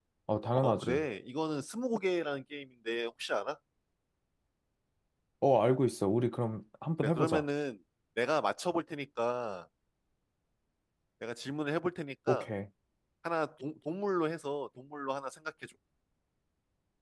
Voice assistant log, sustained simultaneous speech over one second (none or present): none